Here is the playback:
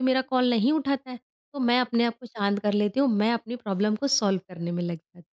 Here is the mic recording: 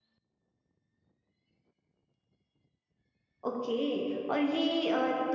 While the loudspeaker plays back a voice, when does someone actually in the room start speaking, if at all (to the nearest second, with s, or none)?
3 s